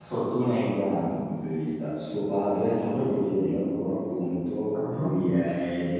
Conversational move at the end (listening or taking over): listening